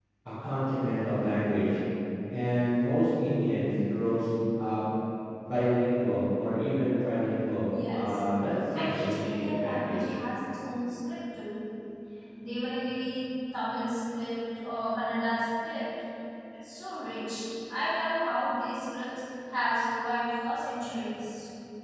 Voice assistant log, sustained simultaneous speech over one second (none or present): present